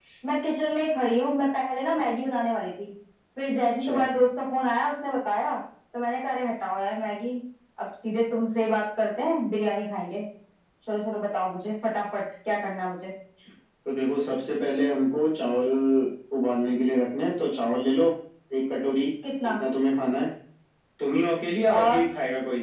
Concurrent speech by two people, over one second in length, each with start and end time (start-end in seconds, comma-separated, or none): none